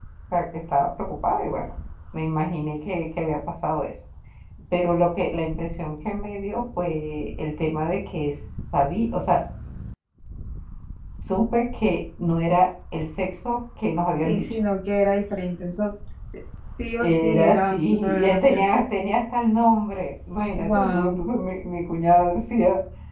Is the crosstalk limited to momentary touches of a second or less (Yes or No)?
No